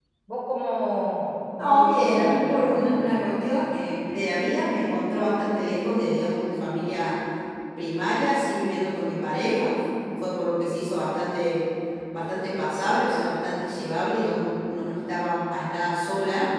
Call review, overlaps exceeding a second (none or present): present